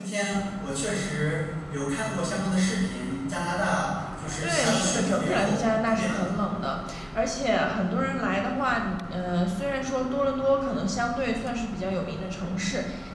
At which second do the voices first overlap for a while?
4.4 s

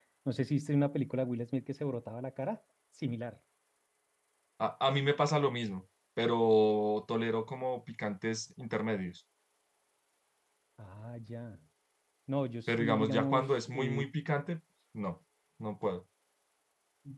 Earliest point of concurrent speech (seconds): 12.7 s

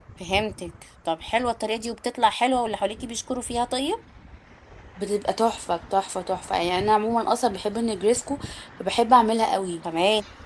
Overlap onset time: none

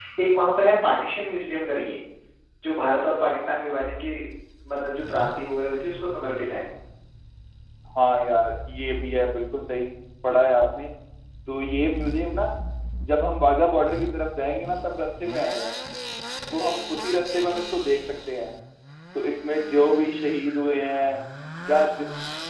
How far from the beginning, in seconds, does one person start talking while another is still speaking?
none

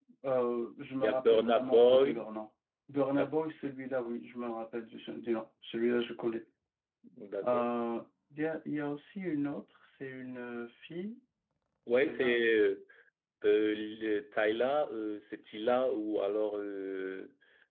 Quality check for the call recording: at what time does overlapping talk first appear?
1.0 s

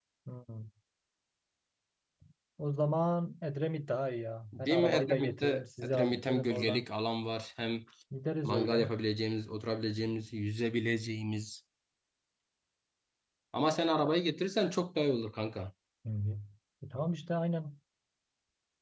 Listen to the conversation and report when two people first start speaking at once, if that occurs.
4.5 s

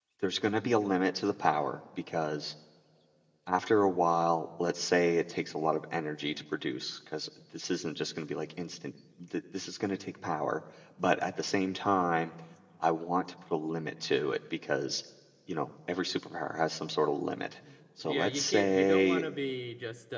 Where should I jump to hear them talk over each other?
18.0 s

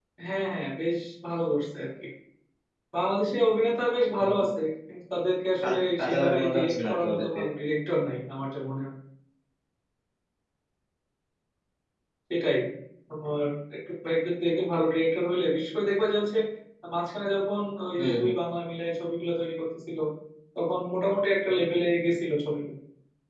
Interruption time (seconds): 5.6 s

